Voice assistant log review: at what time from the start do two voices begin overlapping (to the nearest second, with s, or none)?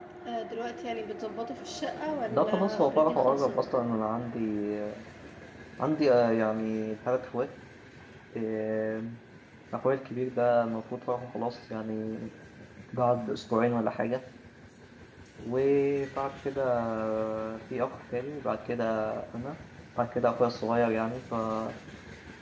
2 s